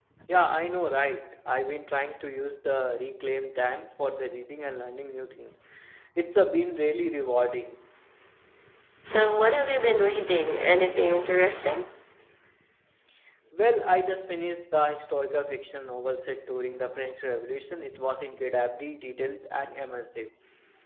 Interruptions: none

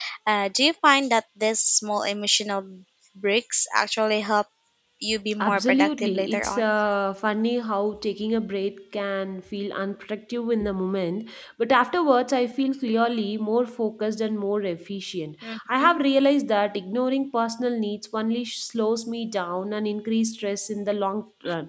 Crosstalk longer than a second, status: present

